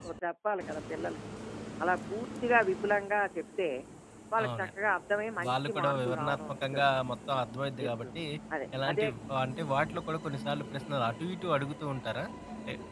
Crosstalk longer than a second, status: present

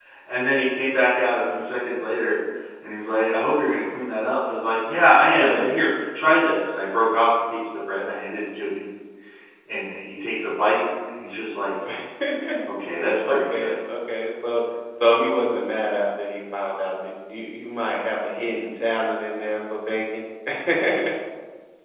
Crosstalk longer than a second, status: none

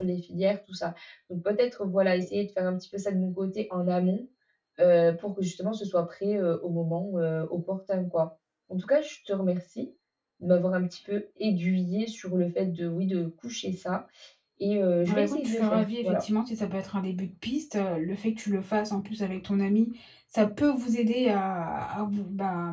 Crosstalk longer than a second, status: present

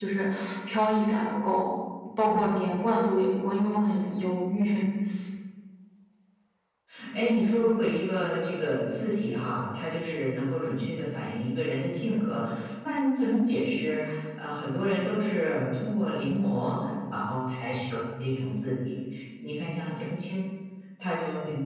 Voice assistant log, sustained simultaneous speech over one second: none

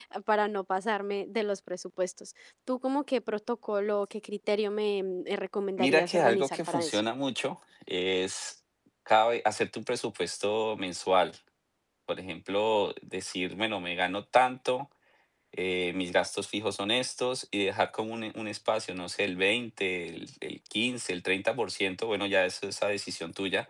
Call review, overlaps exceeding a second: present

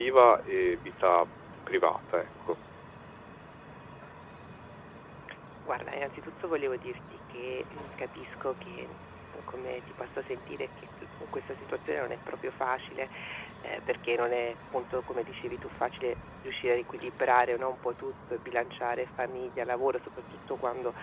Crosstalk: none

